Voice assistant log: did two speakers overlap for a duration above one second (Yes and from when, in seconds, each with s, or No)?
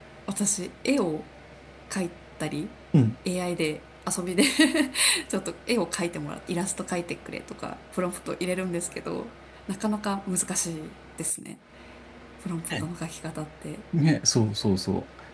No